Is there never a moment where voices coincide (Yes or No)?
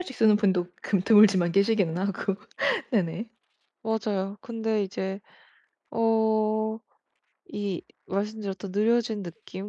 Yes